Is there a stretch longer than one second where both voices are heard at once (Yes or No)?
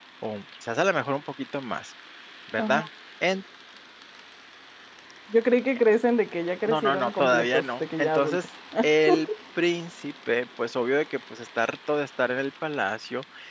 Yes